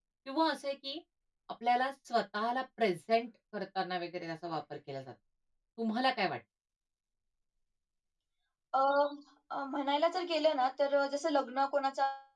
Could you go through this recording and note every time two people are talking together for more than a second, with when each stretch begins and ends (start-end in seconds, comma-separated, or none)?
none